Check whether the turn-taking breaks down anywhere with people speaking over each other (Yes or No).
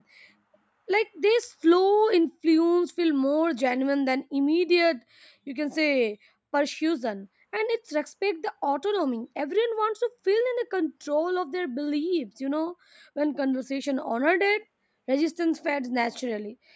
No